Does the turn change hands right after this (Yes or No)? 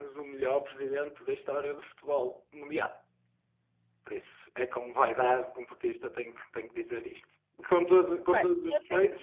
Yes